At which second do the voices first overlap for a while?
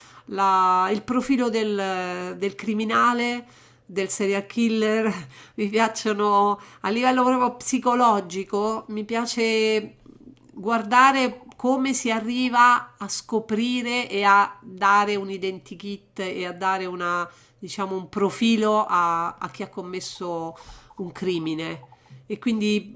none

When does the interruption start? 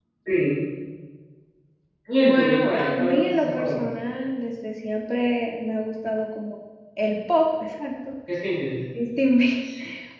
2 s

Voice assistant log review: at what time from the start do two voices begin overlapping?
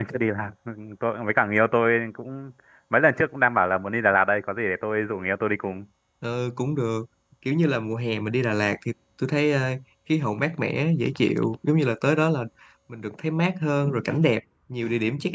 none

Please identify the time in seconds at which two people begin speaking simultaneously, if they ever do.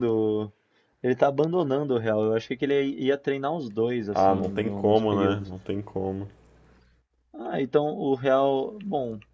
4 s

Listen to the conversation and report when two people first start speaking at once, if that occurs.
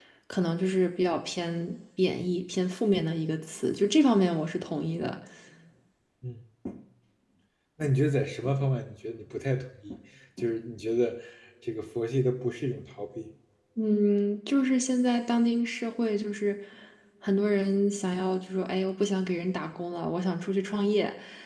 none

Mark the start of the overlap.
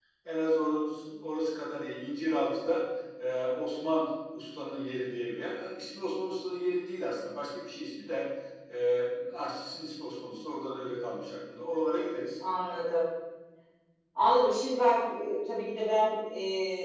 none

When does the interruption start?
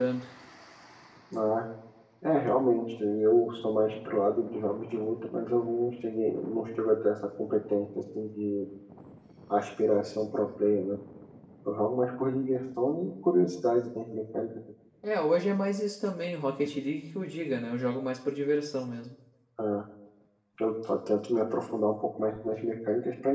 none

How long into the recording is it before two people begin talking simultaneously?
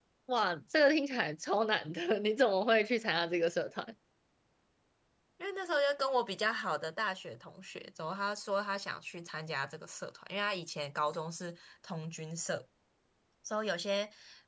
none

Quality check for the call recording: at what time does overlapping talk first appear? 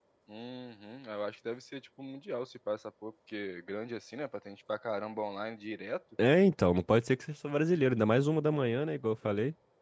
none

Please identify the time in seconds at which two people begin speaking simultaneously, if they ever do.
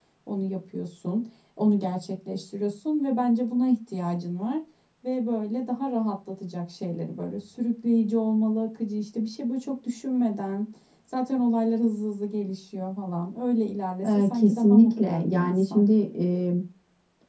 14 s

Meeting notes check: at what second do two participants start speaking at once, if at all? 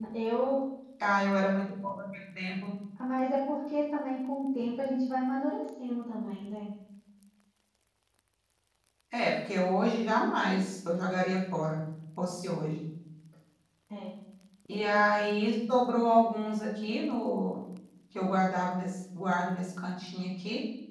none

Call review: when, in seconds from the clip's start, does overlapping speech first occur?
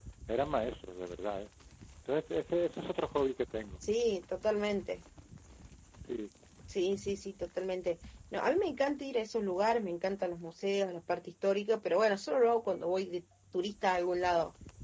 none

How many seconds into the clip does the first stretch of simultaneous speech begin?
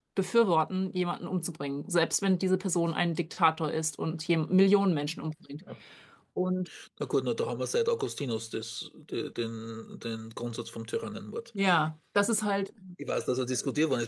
none

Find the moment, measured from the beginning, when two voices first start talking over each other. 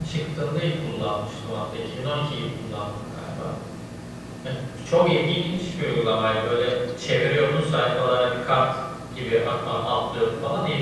none

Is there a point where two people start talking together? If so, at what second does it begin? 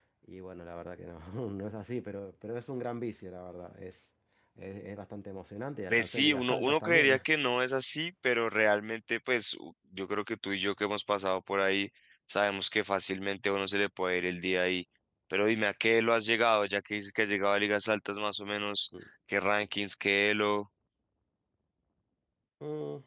6 s

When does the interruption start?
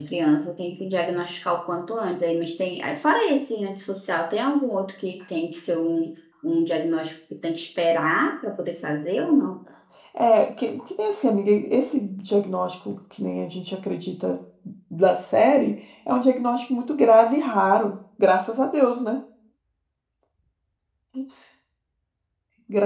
none

